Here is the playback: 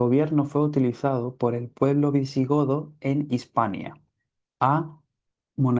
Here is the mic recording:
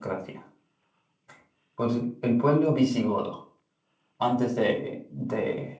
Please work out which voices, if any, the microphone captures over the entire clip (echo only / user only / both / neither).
user only